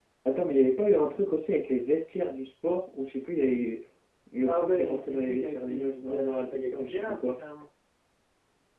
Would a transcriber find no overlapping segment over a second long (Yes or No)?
No